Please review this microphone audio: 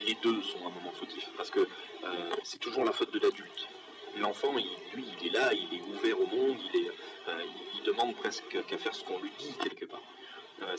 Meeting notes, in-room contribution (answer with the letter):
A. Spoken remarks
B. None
B